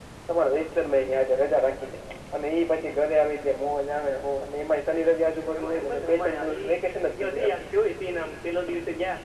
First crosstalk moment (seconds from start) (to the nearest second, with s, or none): 5 s